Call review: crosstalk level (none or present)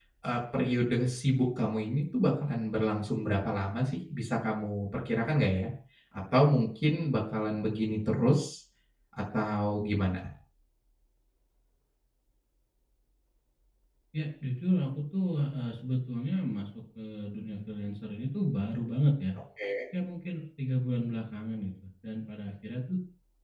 none